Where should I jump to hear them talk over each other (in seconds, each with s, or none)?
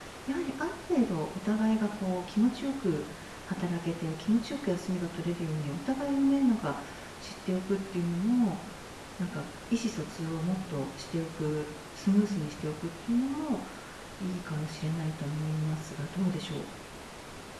none